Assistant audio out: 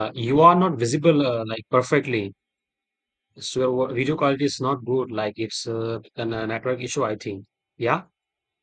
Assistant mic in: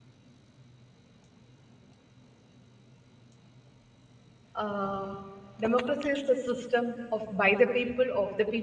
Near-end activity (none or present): present